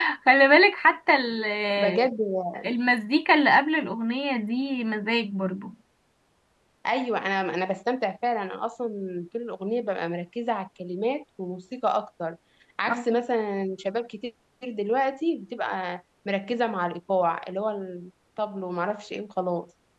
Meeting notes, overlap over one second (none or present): none